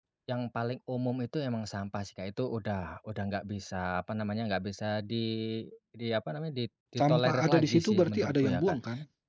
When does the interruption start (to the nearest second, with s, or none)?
7 s